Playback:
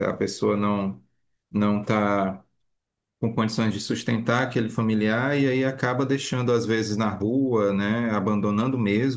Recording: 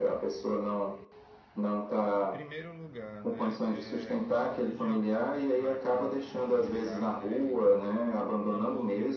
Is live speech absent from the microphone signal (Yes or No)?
No